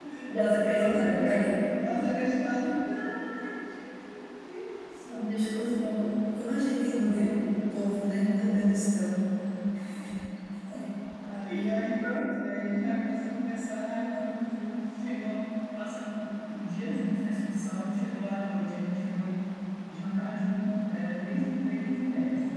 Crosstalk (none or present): present